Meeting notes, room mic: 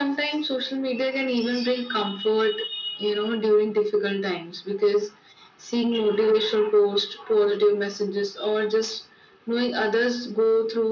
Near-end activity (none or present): none